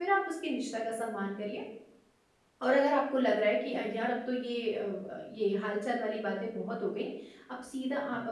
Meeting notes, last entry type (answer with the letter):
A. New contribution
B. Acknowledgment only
B